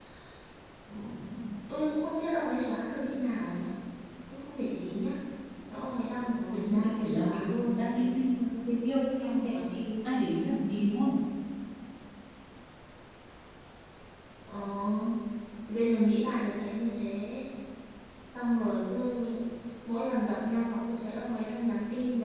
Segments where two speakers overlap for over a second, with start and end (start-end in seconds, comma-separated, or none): 6.5-7.8